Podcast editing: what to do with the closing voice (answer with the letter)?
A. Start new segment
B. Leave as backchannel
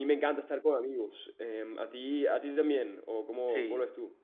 A